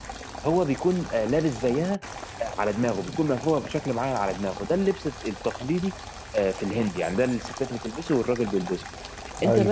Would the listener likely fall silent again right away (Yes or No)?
Yes